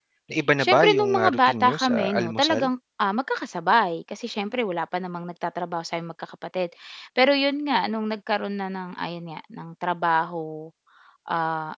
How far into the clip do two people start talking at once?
0.6 s

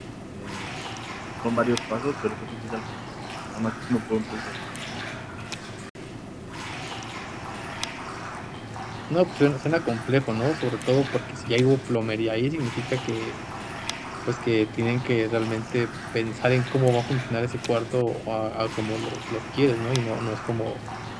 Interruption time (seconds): none

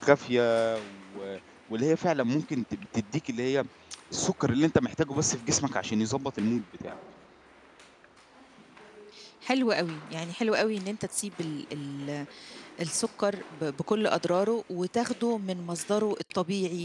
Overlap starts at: none

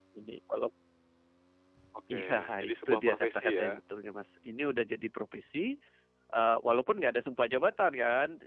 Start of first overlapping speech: 2.1 s

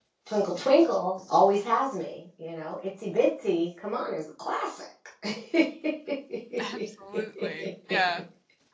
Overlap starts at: none

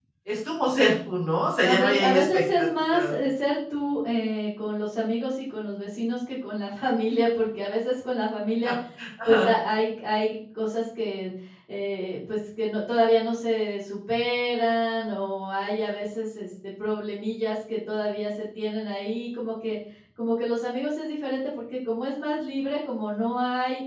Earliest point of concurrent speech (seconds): 1.6 s

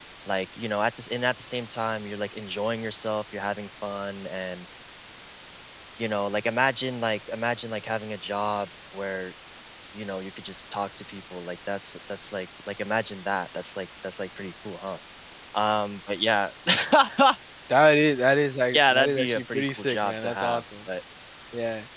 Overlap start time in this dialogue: 18.7 s

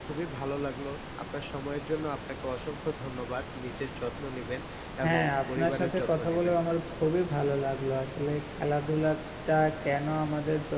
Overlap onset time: 5.0 s

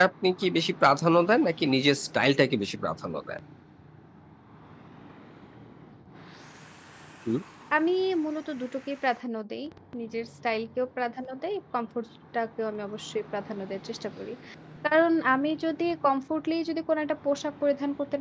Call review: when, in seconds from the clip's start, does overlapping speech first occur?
none

